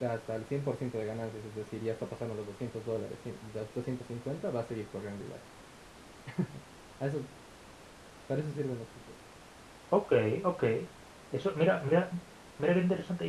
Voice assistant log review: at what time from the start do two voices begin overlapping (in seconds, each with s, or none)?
none